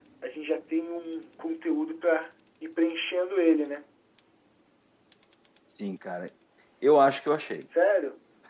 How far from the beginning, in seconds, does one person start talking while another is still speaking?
none

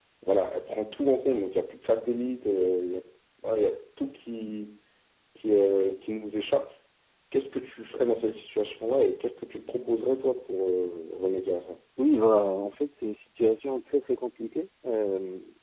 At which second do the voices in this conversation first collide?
none

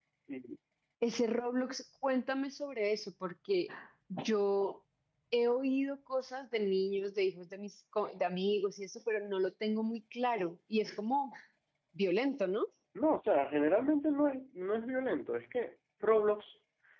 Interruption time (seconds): none

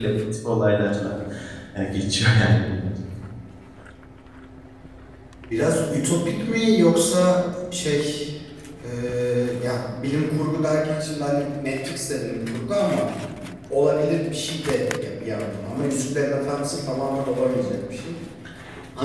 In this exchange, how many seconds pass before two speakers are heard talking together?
none

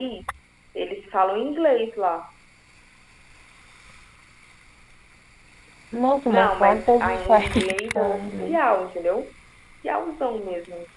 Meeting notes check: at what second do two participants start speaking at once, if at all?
6 s

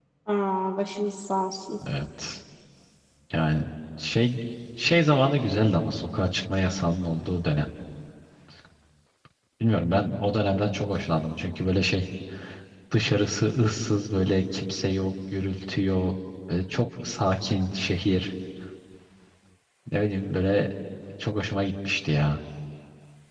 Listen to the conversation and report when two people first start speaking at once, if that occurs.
none

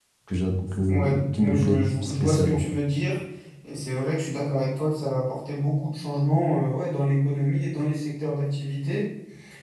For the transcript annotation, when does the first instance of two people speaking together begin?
1 s

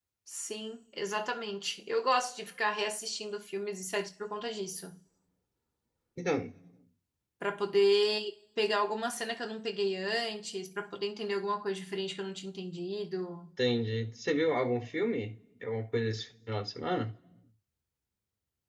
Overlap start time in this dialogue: none

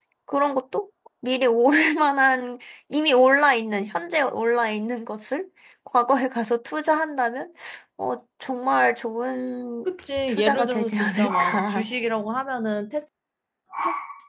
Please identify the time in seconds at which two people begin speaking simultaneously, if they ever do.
10 s

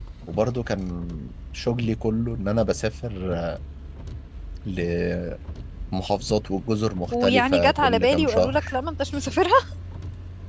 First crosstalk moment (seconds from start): 7 s

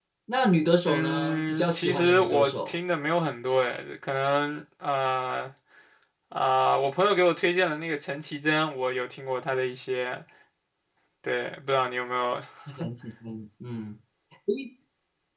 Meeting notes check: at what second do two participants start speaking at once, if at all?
1 s

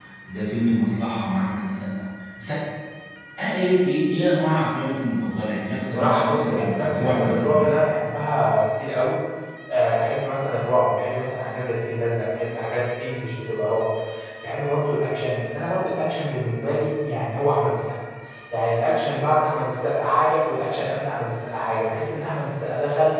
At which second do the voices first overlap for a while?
6 s

